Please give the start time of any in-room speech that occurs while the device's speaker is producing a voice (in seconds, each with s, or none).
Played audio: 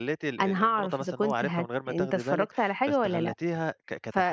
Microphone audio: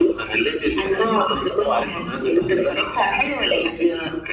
none